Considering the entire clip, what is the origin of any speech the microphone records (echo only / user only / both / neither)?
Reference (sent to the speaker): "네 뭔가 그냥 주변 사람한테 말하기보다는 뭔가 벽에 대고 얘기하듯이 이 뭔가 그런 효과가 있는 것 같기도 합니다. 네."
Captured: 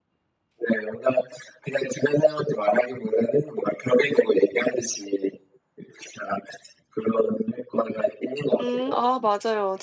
both